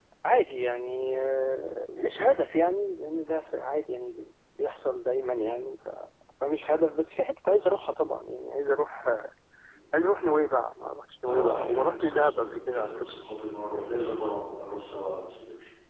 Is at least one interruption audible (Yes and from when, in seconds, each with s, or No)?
Yes, from 11.2 s